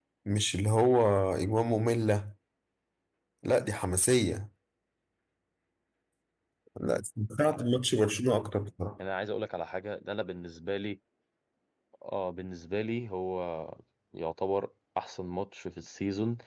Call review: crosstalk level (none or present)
none